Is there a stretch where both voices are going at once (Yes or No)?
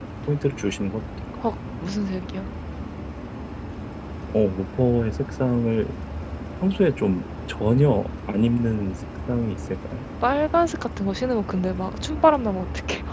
No